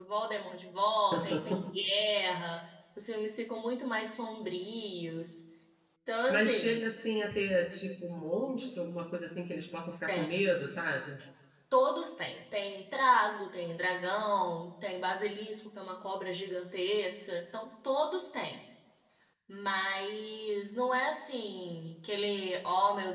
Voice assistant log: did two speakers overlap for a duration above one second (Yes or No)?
No